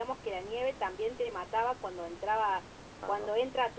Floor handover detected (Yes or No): No